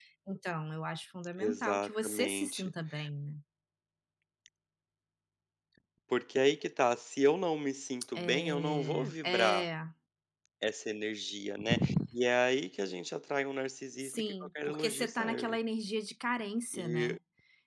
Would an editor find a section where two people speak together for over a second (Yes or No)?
Yes